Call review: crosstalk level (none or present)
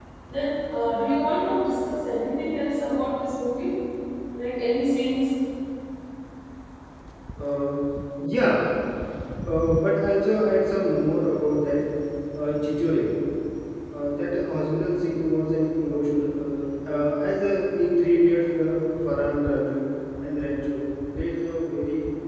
none